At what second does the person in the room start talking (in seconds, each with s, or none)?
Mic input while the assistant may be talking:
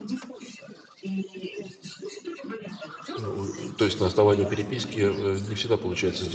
3.2 s